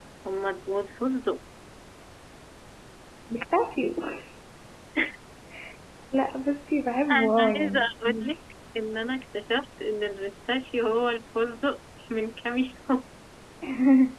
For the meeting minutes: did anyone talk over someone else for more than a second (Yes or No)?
Yes